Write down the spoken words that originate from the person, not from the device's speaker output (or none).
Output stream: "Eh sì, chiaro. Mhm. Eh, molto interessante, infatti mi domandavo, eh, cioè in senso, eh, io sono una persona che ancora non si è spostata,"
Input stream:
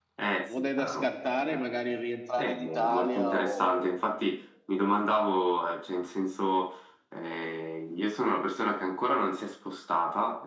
non è da scartare magari rientrare in Italia o,